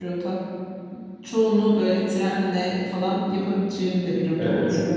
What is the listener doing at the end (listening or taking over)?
taking over